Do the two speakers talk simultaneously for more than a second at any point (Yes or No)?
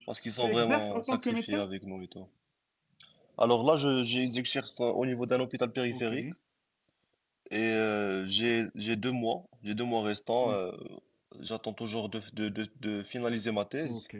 Yes